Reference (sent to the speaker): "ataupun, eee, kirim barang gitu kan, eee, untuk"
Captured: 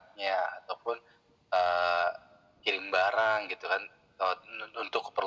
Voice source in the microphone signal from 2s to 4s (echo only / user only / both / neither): echo only